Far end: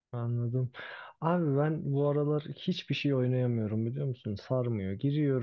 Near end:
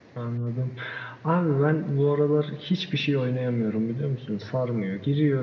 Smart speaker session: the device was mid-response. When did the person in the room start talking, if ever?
none

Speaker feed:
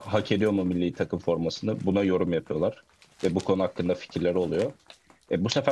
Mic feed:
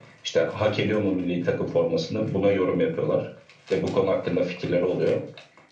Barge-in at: none

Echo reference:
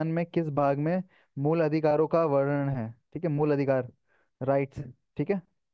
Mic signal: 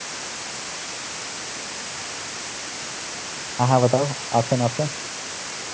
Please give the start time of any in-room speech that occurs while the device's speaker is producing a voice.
3.6 s

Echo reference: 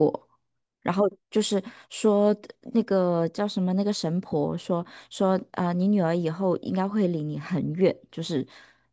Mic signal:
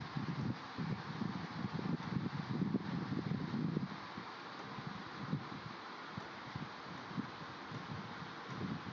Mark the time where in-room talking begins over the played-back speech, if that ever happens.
none

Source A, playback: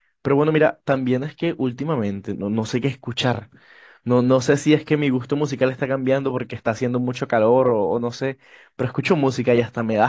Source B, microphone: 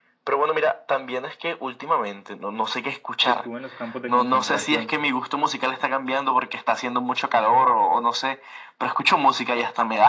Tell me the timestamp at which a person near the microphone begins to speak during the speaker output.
3.2 s

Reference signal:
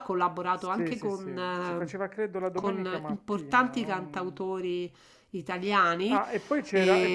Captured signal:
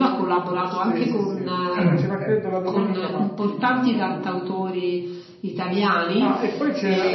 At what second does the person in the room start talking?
1.8 s

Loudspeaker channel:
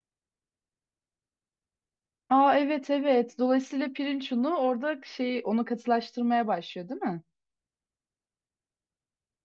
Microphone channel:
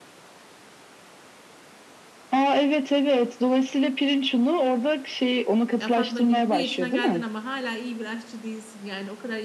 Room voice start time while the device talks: 5.8 s

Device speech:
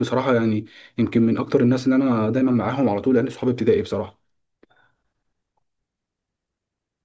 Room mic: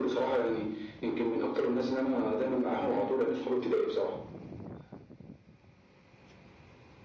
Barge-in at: none

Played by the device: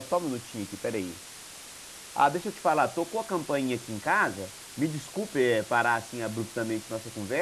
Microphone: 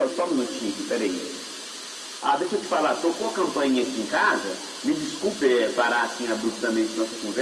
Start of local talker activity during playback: none

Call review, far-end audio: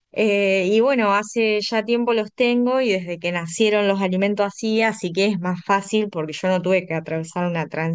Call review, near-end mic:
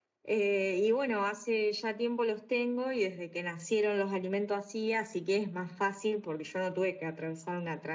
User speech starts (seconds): none

